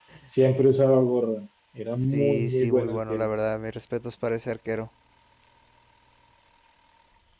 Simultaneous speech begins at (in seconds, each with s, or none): 2.0 s